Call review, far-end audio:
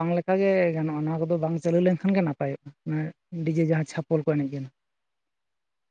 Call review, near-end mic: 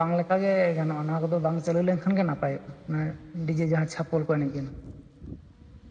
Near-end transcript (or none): none